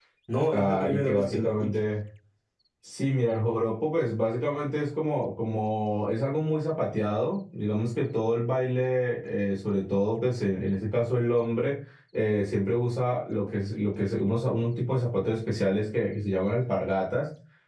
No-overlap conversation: No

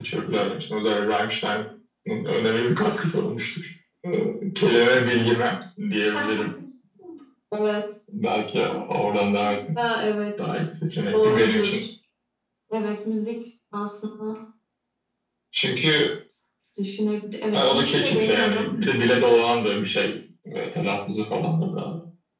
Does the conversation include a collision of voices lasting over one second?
Yes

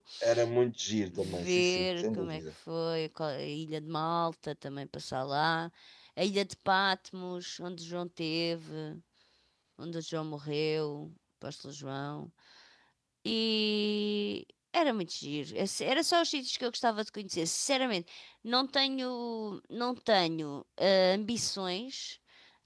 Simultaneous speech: Yes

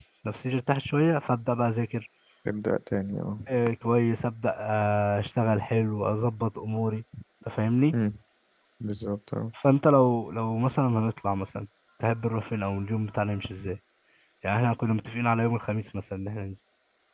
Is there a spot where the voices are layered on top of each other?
No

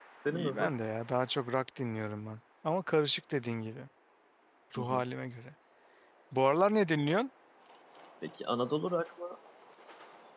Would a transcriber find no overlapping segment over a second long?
Yes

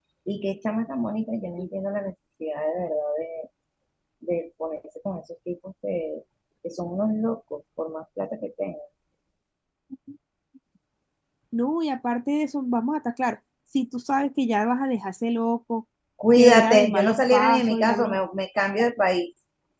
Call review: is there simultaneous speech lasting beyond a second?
Yes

